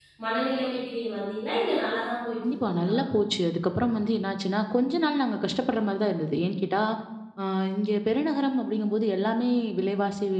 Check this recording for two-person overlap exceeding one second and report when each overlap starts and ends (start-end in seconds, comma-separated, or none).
none